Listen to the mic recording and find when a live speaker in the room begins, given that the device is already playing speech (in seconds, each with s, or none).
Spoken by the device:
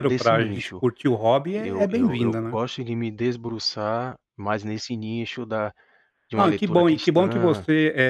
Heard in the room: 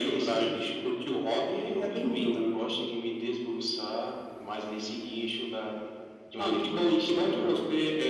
none